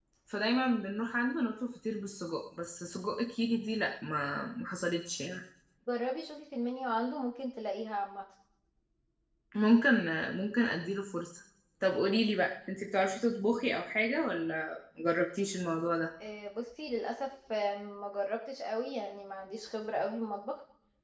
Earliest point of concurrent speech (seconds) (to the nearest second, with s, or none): none